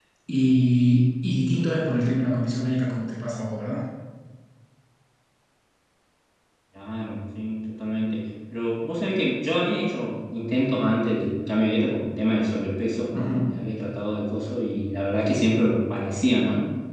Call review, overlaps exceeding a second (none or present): none